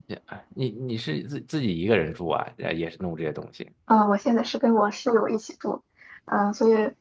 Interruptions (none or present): none